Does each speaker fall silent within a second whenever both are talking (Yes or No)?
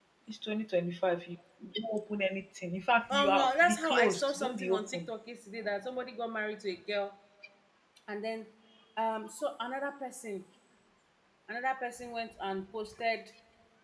No